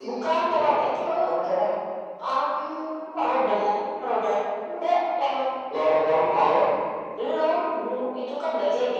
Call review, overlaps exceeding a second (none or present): none